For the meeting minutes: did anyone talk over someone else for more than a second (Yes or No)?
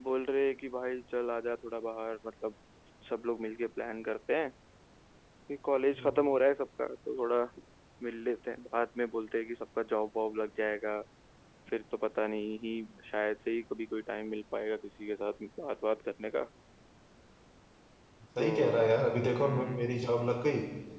No